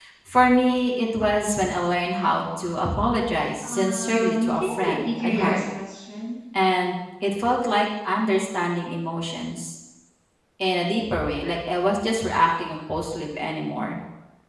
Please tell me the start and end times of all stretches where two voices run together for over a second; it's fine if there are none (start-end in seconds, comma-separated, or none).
3.6-5.6